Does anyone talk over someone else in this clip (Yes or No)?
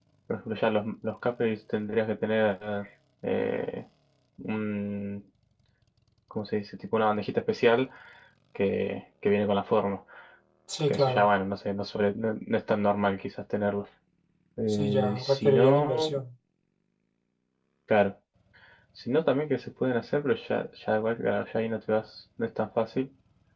Yes